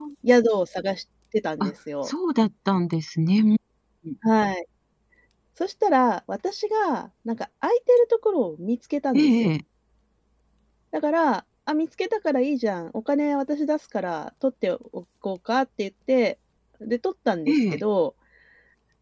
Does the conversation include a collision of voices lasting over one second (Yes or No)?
No